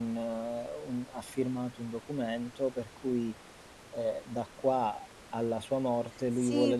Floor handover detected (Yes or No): Yes